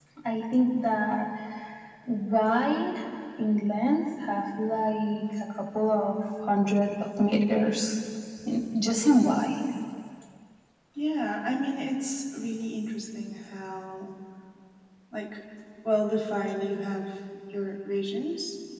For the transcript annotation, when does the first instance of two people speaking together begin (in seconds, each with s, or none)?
none